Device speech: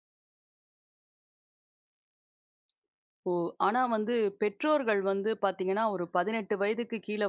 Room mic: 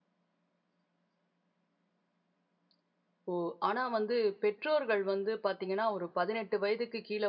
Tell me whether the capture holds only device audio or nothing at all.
Yes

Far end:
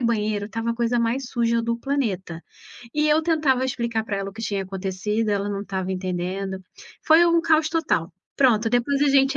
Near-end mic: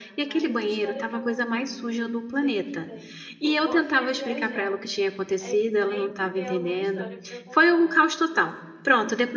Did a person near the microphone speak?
Yes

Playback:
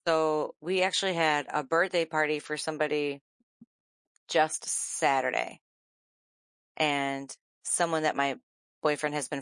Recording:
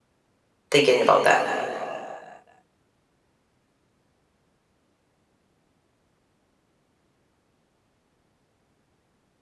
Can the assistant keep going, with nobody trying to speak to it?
No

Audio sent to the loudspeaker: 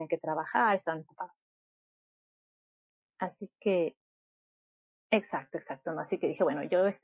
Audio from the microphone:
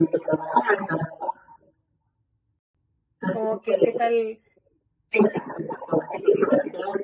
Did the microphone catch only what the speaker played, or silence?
No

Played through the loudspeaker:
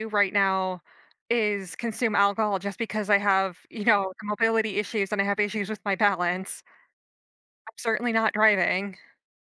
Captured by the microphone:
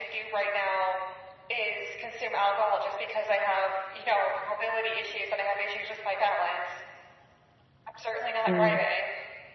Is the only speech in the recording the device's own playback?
No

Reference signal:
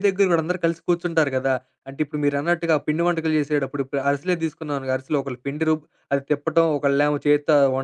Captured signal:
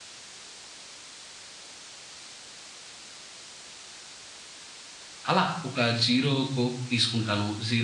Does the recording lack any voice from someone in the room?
No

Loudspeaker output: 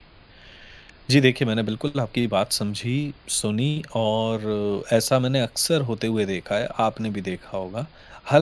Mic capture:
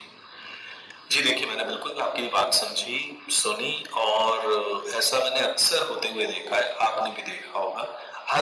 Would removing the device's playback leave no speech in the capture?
Yes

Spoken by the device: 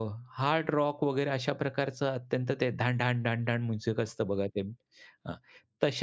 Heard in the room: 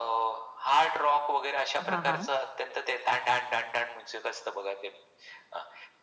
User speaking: Yes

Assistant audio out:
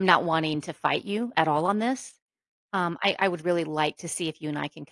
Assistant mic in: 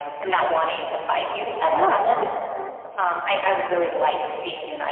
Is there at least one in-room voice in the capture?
Yes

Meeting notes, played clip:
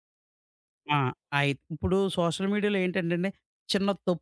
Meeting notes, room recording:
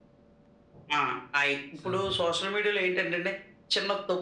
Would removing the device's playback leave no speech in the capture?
No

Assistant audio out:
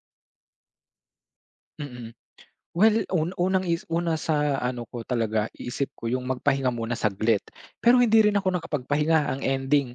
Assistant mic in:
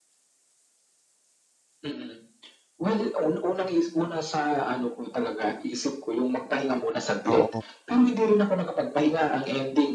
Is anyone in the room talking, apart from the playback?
Yes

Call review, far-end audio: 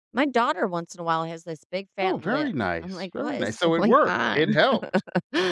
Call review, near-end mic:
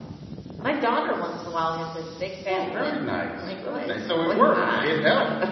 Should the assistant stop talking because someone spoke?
No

